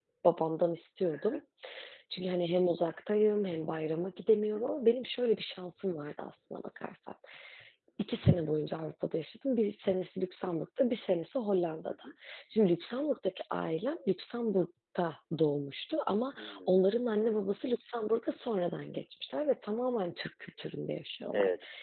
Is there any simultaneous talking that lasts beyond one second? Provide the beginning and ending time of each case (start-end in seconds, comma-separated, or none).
none